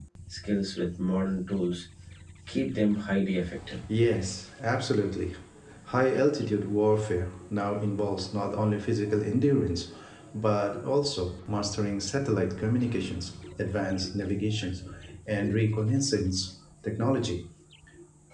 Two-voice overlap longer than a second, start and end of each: none

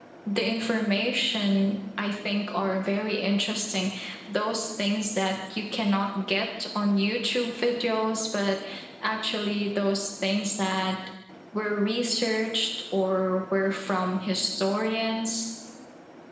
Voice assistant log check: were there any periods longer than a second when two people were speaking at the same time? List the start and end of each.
none

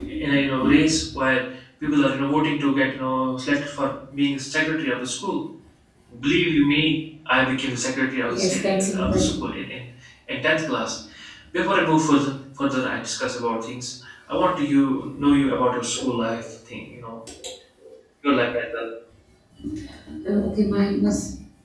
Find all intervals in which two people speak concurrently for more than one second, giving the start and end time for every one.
8.3-9.5

